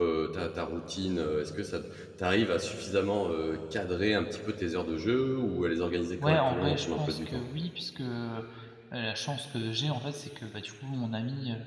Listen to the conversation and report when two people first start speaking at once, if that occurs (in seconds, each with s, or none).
6.2 s